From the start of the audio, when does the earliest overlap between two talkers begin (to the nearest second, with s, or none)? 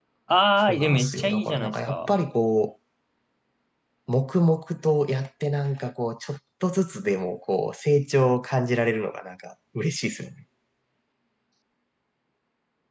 1 s